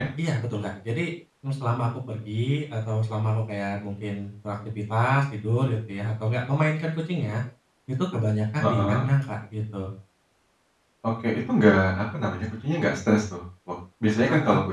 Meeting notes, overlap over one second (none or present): none